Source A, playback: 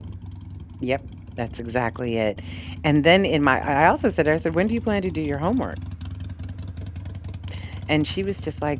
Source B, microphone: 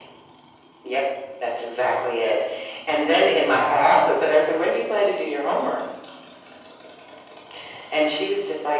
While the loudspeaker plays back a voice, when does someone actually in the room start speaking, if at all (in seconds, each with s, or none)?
none